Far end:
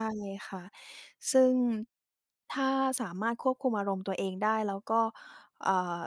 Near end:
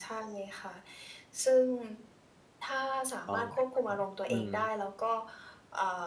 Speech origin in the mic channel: both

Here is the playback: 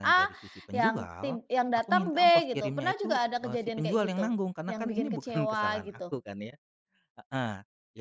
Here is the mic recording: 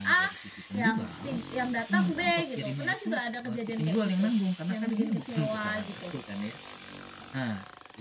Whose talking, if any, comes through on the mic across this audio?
echo only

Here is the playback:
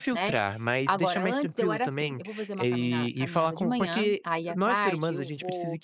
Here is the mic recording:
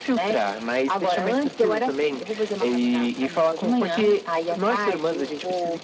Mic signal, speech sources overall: echo only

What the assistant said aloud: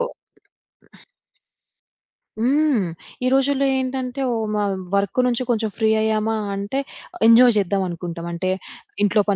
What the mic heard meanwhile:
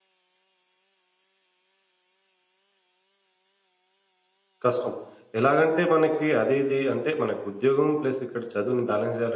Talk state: user only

